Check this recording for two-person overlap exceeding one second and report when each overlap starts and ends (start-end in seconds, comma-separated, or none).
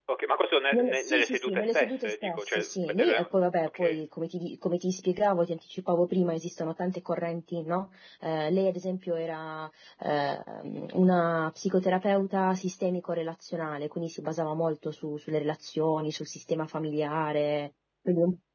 0.7-3.2